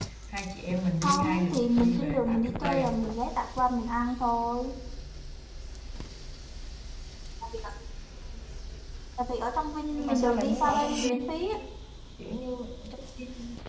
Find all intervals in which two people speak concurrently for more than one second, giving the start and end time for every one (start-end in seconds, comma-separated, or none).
1.0-3.0, 9.9-11.4